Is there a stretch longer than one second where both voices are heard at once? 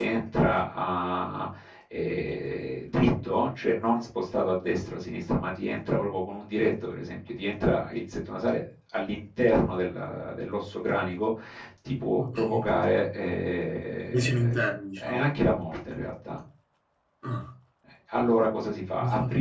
No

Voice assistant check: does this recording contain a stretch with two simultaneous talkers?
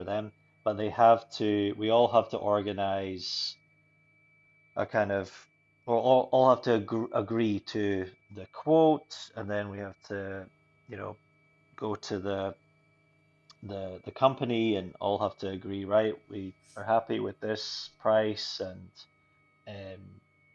No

